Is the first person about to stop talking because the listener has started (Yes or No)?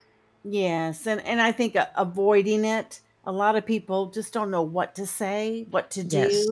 No